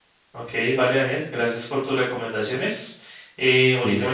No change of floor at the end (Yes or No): Yes